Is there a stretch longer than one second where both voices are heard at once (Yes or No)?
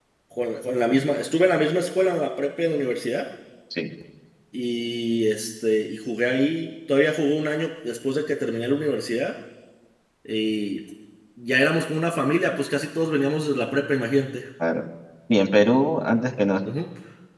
No